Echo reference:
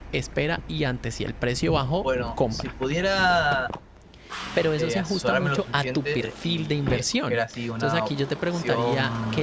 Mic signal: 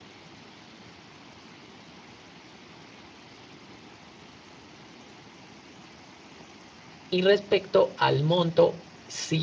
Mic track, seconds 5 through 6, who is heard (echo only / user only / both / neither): neither